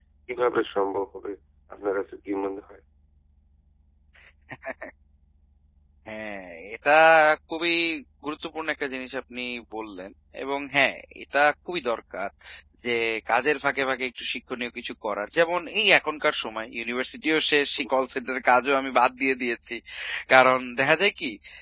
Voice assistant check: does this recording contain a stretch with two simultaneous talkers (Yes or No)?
No